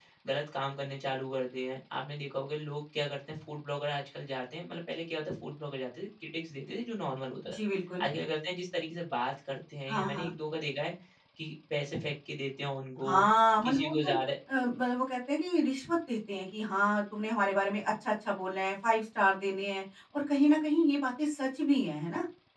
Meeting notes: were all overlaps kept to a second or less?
Yes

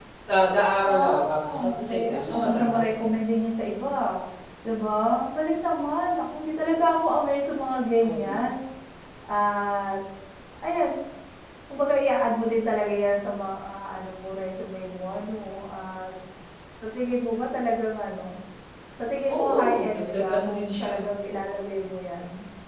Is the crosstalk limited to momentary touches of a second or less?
No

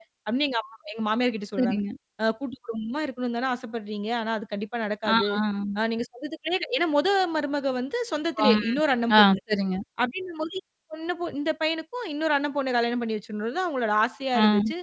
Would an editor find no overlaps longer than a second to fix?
Yes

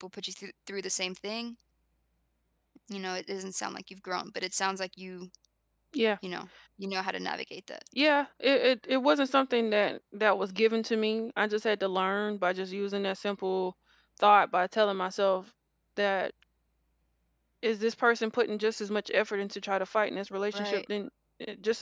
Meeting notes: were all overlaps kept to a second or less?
Yes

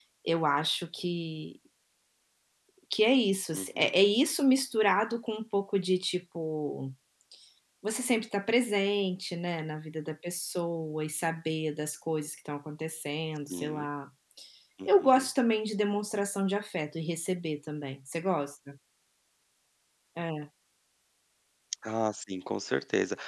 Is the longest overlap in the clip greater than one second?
No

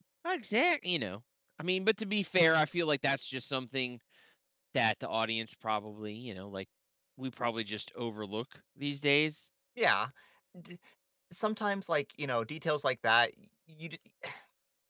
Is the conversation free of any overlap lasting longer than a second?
Yes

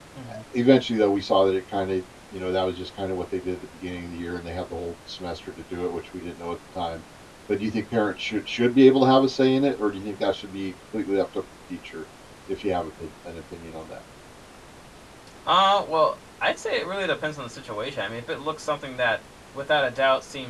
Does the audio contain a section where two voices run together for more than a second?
No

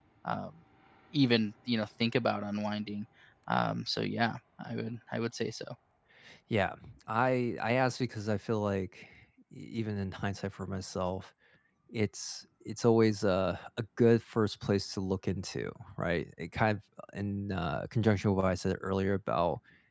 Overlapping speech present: No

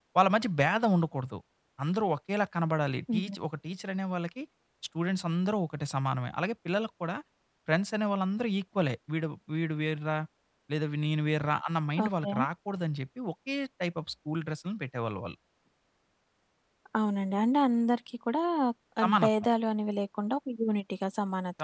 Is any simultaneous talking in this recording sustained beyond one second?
No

